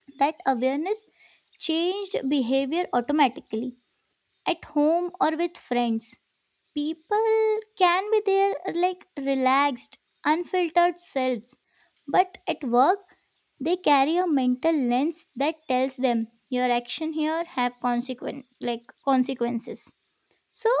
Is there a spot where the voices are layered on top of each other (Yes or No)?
No